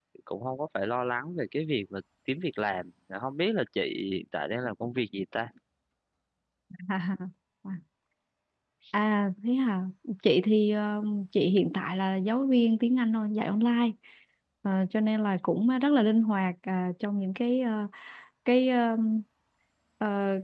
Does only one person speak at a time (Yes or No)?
Yes